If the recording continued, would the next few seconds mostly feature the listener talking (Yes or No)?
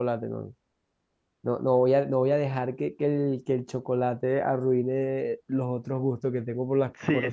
Yes